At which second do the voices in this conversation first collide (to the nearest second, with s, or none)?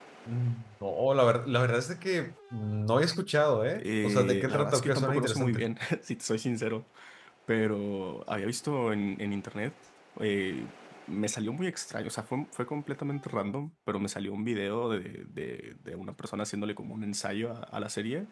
4 s